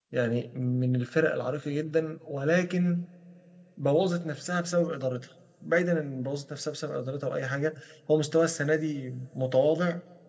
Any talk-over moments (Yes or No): No